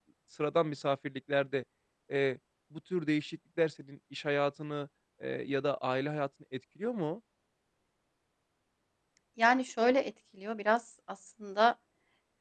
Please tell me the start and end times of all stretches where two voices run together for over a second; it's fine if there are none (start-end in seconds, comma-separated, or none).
none